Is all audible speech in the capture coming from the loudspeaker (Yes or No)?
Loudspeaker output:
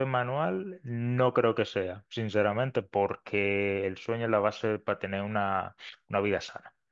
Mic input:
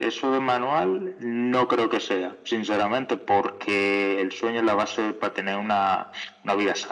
Yes